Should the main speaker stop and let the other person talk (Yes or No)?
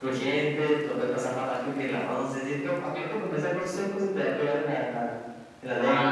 Yes